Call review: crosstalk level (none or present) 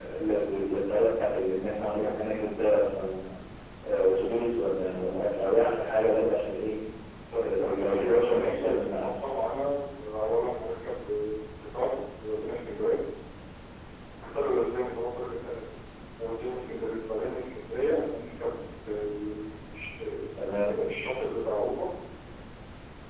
present